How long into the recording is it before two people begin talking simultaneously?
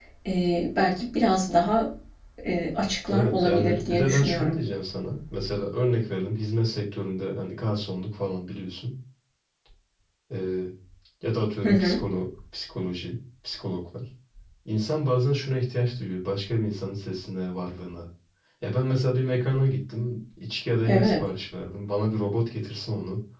3 s

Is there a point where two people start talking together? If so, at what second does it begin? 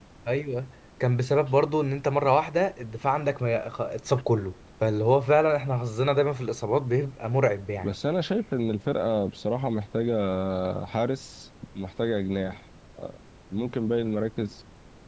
none

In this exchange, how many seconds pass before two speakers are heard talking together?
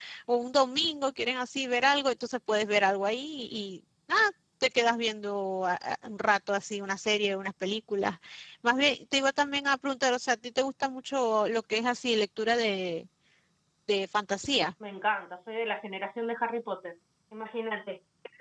none

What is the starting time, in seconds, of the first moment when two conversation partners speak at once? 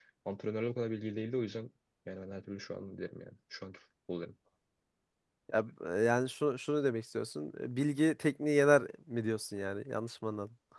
none

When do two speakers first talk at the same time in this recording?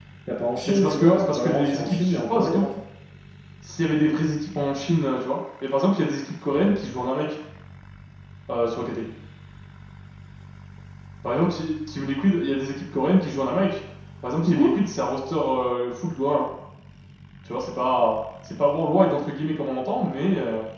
1 s

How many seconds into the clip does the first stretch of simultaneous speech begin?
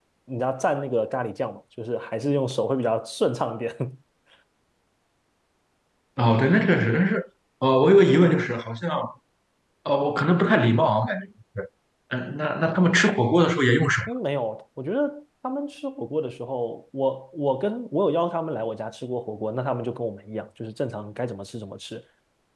none

